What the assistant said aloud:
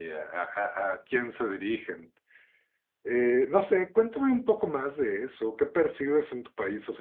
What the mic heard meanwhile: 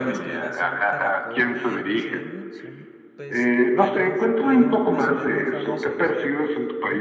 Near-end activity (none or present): present